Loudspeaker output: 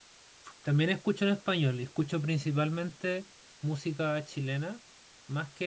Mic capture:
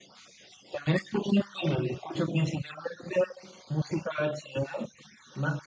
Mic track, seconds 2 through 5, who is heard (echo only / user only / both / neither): echo only